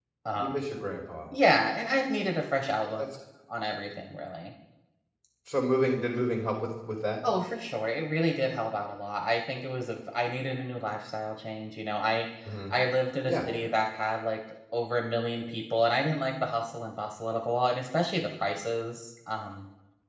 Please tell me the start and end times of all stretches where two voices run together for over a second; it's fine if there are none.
none

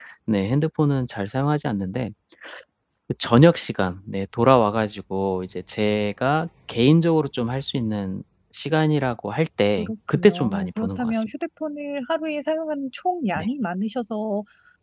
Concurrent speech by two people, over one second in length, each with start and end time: 9.8-11.3

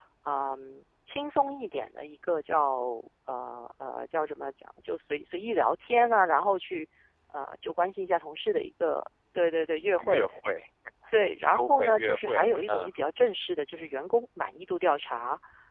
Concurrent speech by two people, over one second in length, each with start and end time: 11.5-12.9

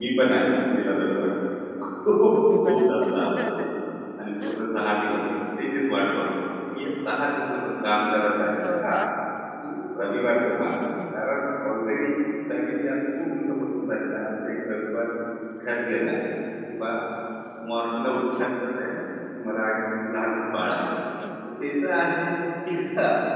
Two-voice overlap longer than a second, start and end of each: 2.3-3.7

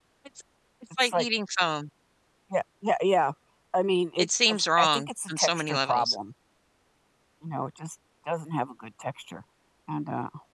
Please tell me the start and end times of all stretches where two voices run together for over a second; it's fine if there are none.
4.2-6.2

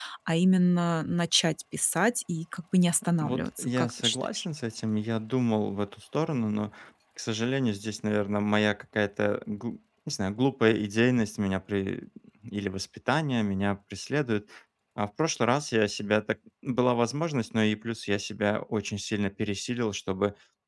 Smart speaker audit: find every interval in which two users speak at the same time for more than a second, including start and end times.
3.2-4.4

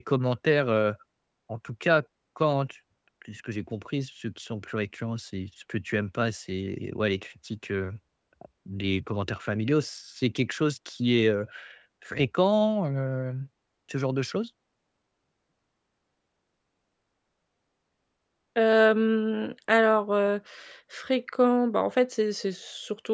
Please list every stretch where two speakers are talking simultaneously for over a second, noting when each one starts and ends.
none

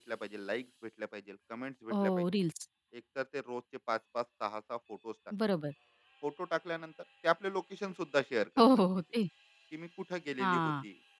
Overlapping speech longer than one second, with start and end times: none

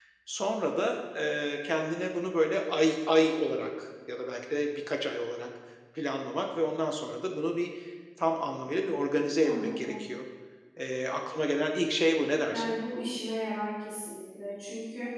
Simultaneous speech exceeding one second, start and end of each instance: none

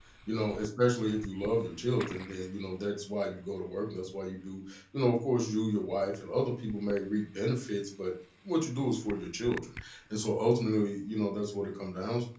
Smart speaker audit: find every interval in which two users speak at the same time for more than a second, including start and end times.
none

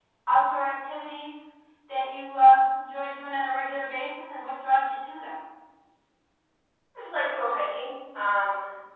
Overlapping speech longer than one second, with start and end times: none

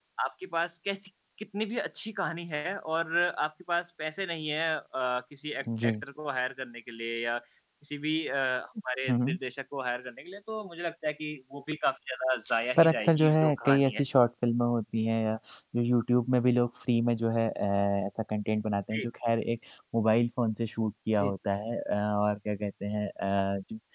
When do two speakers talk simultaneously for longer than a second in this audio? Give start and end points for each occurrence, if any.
12.8-14.0

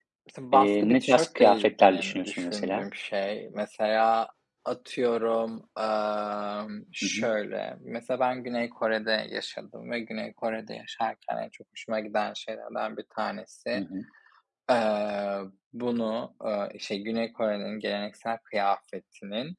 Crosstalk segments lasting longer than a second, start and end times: 0.5-2.8

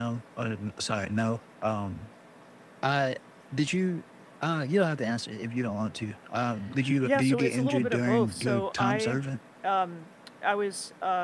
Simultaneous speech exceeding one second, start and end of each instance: 7.0-9.2

